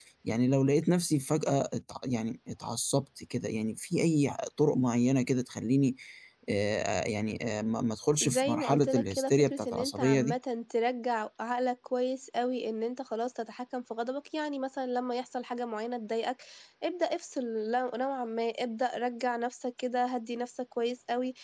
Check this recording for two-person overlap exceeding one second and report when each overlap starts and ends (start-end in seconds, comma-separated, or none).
8.2-10.3